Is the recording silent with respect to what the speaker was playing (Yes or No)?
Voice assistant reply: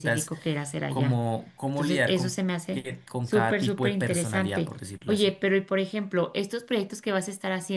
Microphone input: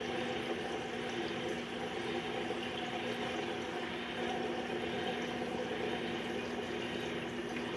Yes